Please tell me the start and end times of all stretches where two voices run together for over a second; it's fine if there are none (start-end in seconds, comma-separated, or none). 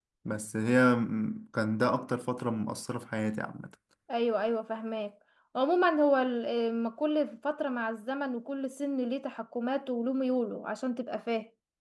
none